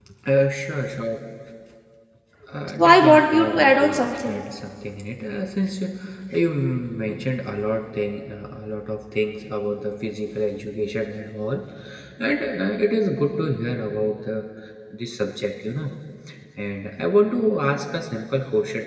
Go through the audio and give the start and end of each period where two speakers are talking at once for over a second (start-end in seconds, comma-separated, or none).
2.8-4.4